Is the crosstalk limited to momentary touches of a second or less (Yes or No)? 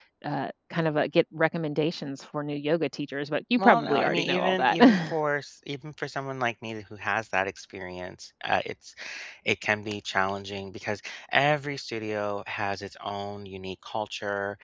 No